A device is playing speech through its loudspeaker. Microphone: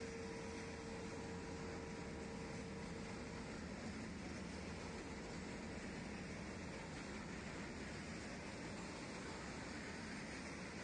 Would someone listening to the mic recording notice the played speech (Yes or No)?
No